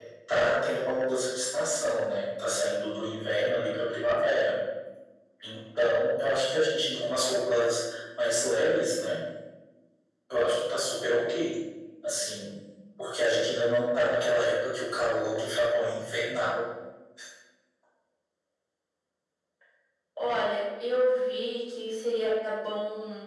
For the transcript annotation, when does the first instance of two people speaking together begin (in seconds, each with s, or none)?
none